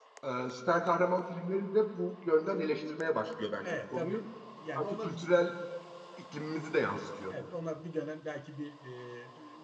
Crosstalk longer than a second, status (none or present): none